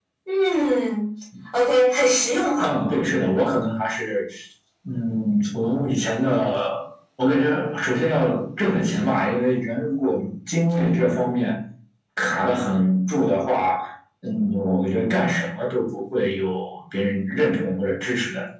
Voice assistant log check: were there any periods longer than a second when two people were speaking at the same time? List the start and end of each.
none

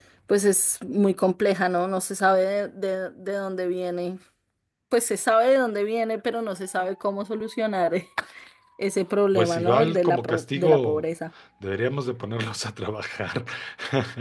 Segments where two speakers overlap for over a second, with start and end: 9.3-11.0

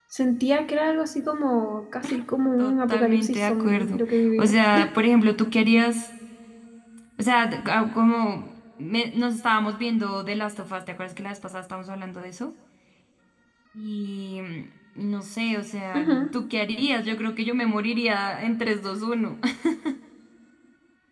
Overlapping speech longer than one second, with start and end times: 2.6-4.0

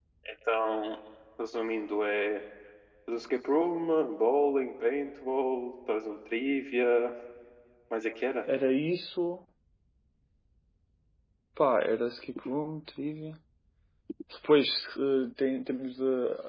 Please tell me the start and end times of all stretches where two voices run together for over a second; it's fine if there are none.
none

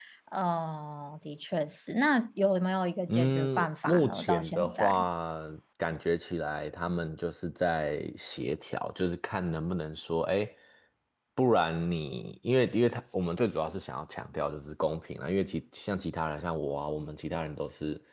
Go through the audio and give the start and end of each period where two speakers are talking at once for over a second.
3.1-5.1

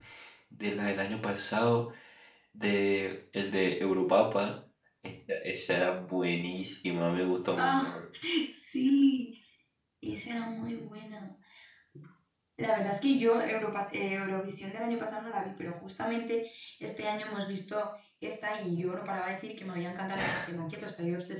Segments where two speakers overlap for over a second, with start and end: none

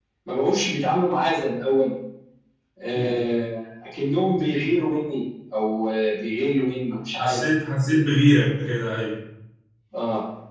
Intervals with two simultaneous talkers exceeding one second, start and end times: none

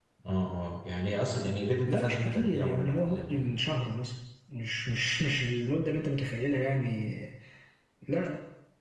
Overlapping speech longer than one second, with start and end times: 1.9-3.5

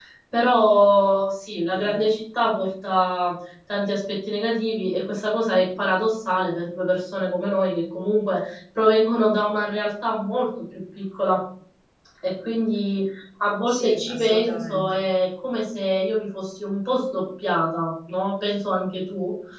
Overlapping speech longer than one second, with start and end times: 13.7-15.0

